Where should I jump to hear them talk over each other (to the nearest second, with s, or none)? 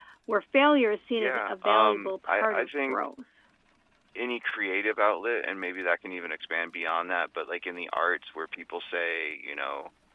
1 s